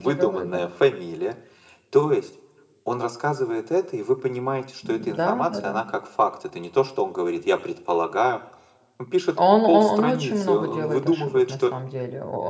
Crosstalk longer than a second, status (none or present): present